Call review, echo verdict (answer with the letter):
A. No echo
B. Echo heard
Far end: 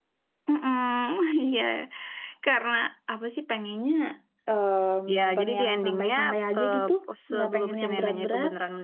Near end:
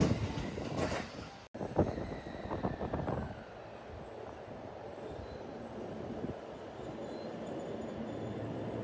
A